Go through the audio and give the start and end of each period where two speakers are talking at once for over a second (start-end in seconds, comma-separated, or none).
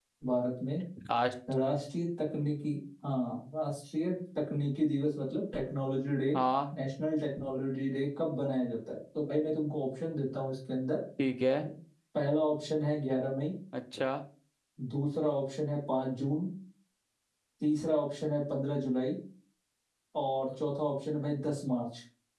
none